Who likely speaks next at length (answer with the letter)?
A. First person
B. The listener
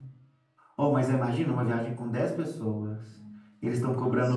A